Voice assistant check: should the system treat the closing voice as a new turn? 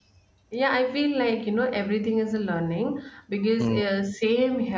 No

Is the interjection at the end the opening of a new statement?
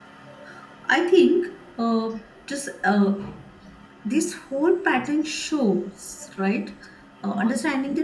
No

